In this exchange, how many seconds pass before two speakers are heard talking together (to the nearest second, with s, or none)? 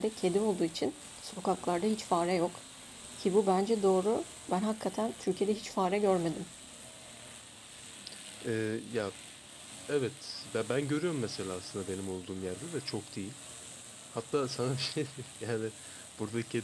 none